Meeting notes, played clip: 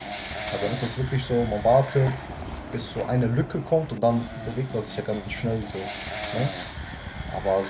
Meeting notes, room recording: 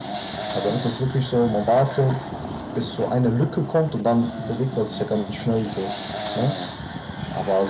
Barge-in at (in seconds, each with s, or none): none